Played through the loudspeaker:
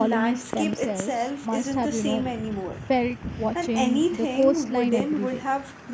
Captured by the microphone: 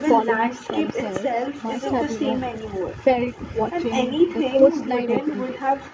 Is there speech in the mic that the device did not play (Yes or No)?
Yes